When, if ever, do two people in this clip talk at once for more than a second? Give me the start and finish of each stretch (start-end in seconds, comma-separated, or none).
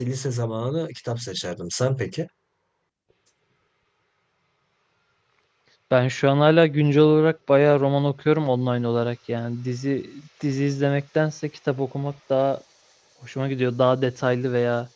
none